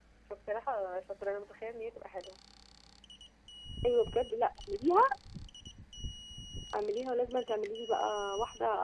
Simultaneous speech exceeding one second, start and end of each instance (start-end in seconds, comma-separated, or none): none